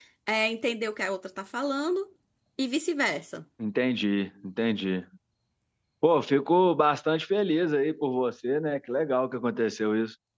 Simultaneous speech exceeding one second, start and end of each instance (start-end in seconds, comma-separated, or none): none